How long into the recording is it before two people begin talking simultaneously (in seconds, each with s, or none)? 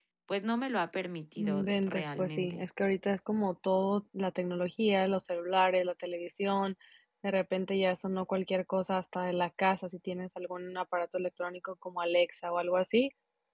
1.4 s